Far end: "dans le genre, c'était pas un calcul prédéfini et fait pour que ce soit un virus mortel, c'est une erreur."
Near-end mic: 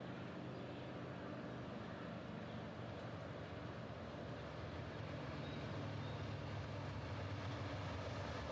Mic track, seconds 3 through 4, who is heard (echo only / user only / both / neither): neither